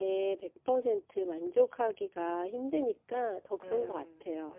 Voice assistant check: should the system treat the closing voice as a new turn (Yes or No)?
Yes